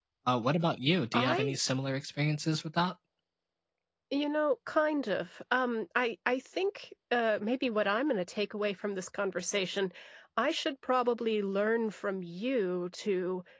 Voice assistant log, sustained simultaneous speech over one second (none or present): none